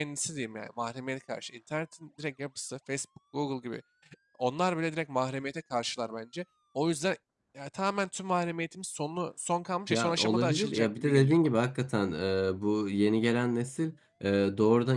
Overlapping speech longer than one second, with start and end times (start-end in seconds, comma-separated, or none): 9.9-11.4